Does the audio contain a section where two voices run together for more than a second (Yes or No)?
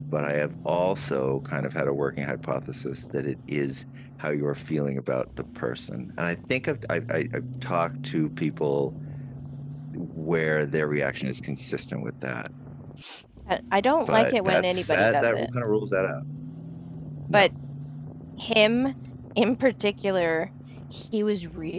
Yes